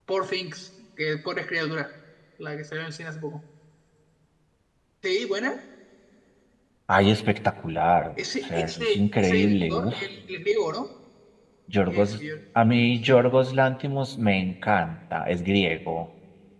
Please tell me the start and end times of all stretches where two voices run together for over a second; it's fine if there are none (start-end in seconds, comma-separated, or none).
8.4-9.9